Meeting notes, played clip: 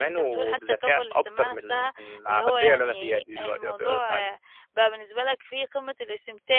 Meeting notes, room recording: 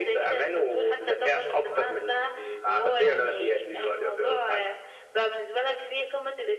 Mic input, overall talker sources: echo only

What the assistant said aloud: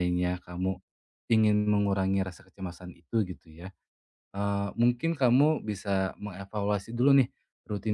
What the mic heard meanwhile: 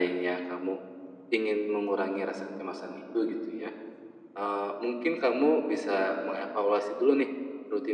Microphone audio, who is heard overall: echo only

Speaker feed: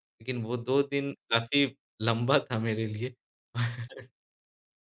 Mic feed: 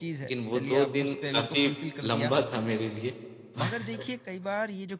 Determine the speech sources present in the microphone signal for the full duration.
both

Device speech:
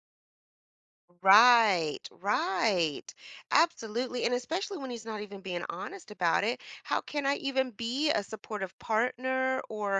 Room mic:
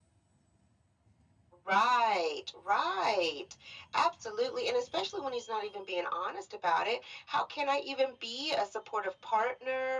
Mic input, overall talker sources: echo only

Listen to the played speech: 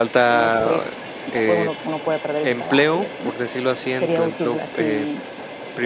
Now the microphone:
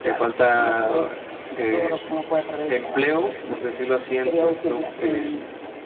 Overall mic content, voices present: echo only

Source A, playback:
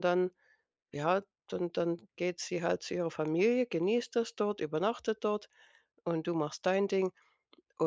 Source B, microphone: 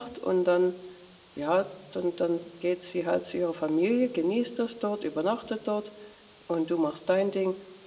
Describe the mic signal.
echo only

